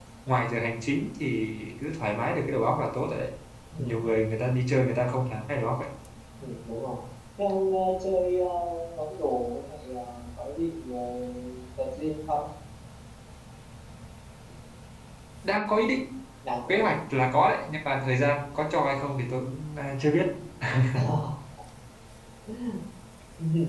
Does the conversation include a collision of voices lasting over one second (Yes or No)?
No